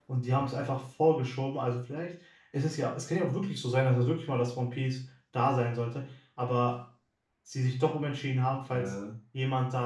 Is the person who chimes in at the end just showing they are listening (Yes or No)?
Yes